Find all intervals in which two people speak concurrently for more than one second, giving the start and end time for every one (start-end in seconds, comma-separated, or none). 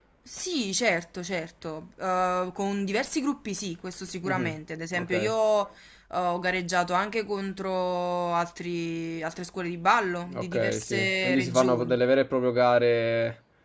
10.3-12.0